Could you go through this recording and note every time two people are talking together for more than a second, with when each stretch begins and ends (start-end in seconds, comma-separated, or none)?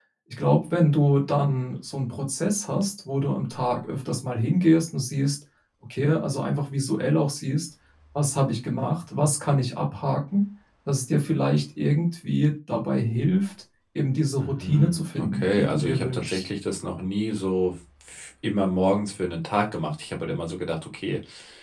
14.4-16.5